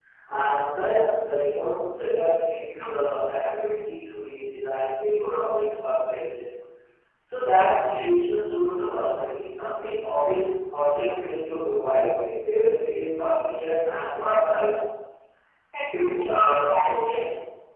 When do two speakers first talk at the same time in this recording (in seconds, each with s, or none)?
15.9 s